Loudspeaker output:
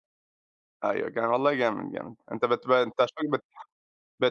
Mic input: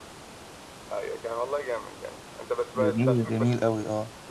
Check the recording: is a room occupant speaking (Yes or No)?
Yes